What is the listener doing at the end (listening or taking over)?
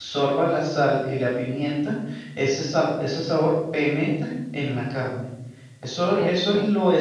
listening